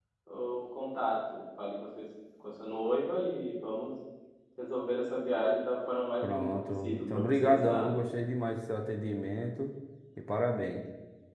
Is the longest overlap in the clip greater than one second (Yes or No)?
Yes